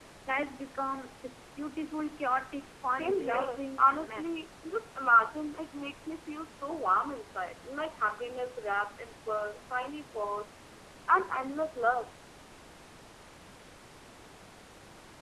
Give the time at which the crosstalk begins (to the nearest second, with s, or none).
3 s